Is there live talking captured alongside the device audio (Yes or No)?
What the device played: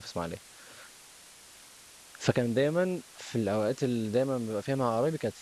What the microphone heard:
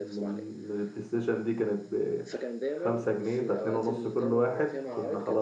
Yes